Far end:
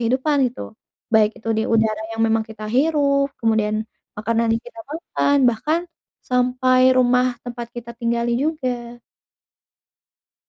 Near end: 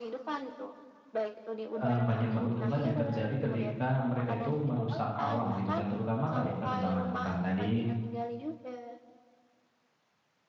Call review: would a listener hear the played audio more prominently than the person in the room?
No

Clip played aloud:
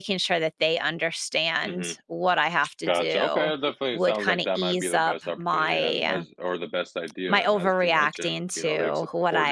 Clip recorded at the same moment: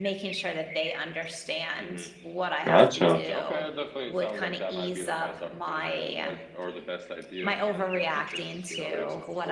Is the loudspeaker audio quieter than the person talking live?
Yes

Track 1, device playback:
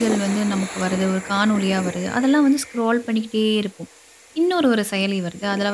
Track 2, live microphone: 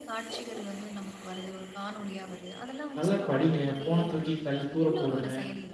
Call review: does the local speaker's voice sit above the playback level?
Yes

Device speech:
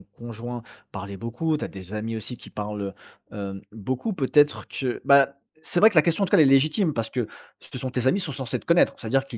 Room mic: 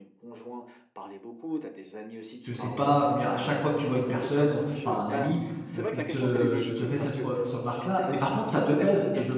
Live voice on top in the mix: Yes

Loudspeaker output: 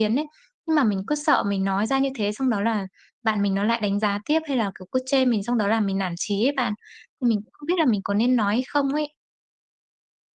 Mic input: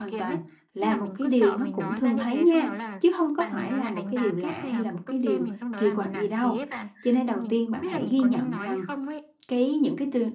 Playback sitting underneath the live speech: Yes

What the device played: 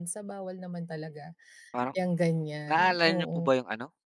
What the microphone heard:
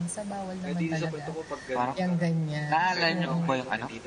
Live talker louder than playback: No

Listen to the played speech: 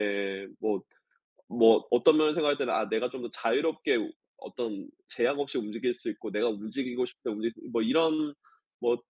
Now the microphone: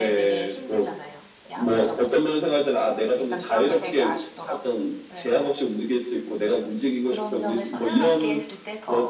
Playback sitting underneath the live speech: No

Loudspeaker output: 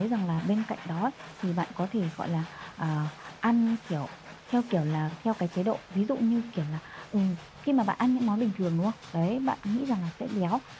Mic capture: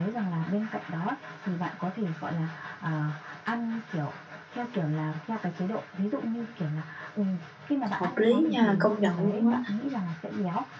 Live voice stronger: Yes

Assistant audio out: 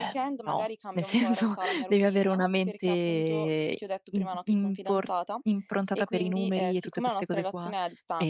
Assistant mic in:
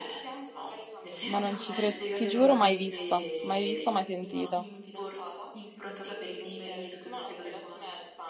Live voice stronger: Yes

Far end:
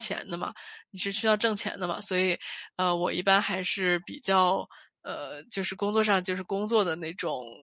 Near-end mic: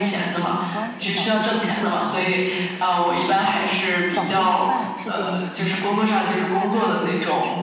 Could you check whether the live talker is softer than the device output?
Yes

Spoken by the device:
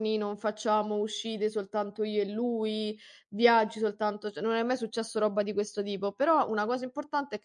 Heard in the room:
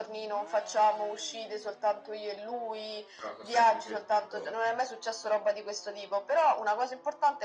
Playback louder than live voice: Yes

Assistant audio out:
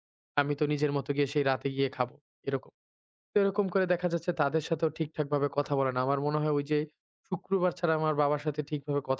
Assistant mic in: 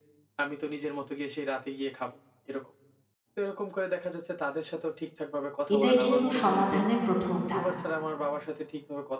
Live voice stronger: Yes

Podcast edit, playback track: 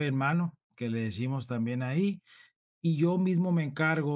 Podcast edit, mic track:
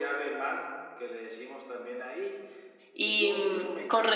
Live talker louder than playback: Yes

